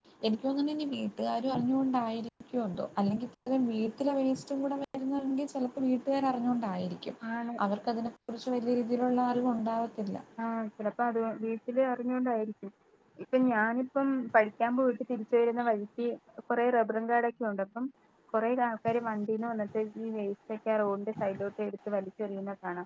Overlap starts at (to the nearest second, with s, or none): none